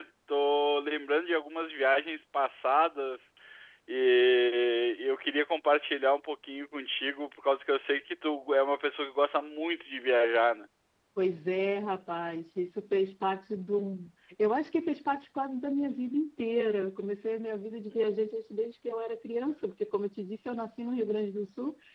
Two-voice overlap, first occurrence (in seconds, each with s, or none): none